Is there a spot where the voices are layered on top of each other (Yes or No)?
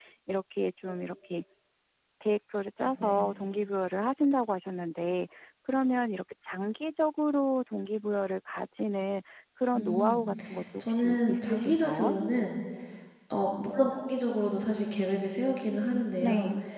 Yes